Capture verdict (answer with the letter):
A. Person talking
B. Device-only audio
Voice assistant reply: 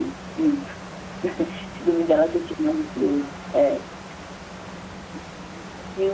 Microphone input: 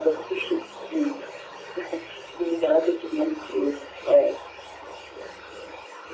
B